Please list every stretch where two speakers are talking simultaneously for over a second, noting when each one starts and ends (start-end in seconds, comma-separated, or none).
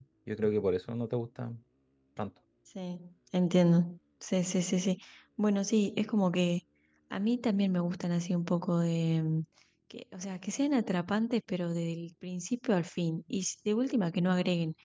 none